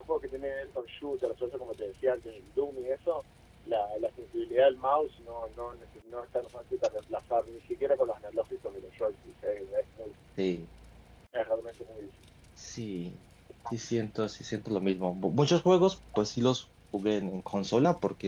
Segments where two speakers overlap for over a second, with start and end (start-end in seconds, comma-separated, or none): none